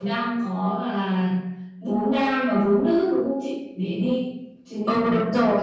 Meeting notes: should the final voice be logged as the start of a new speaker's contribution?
Yes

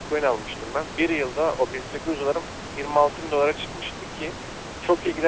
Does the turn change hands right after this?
No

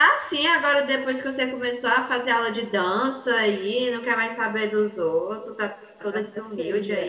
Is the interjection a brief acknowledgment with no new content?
No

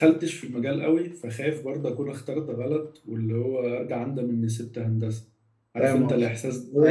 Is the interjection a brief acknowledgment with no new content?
No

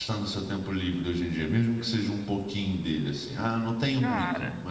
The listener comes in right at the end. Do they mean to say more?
Yes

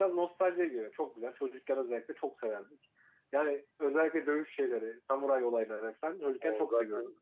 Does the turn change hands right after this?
No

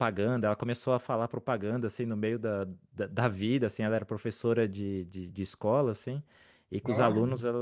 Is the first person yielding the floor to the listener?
No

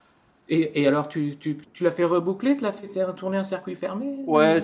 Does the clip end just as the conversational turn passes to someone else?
Yes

